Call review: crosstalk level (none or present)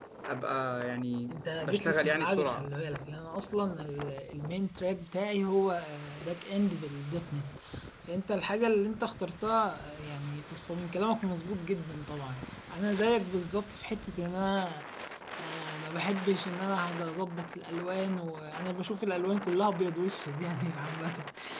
present